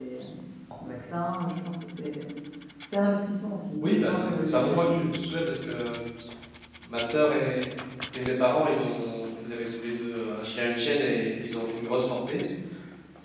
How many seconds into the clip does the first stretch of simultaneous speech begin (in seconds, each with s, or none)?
3.8 s